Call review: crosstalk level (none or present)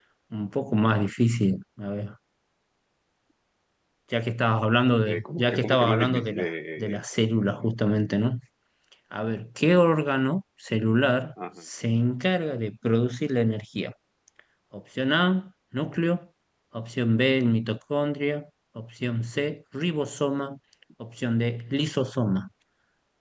present